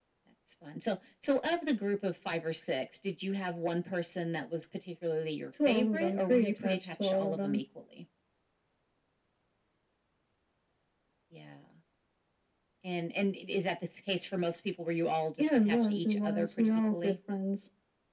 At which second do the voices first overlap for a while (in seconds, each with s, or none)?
5.6 s